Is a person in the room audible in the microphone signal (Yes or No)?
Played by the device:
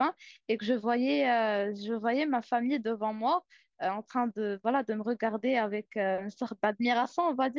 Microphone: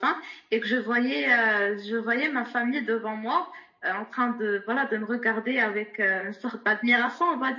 No